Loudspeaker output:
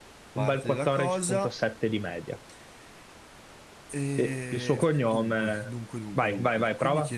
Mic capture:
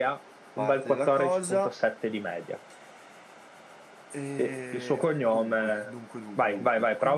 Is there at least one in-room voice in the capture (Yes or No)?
No